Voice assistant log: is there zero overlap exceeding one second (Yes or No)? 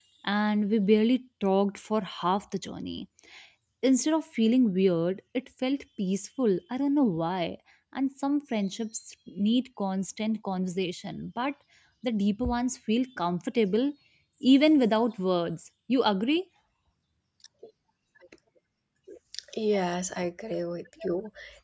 Yes